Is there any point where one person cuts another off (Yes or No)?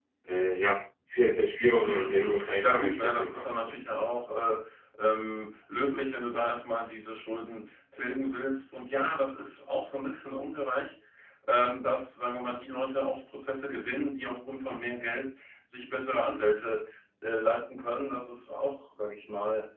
Yes